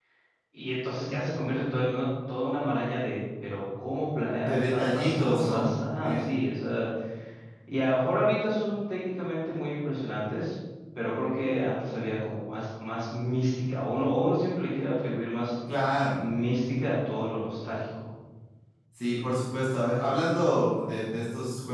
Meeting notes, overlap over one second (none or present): present